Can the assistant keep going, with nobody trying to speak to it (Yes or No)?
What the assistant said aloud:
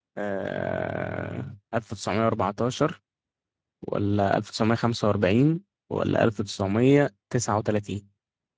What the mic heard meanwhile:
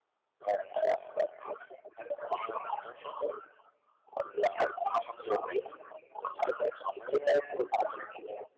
Yes